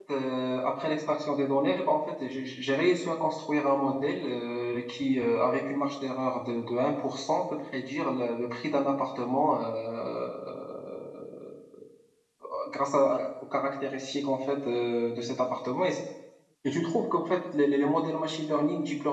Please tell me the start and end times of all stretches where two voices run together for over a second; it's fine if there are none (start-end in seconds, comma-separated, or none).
none